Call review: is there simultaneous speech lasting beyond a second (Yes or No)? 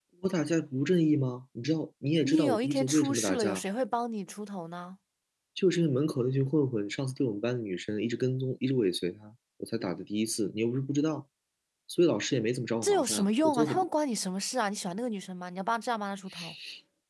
Yes